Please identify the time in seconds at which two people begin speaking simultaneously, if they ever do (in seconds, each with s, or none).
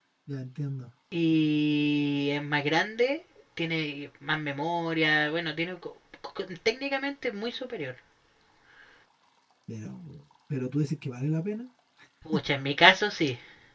none